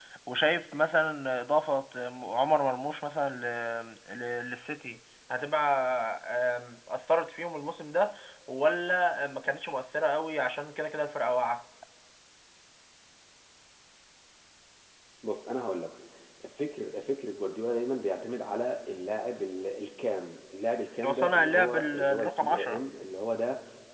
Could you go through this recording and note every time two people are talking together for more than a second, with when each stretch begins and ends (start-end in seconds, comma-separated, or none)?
21.1-22.8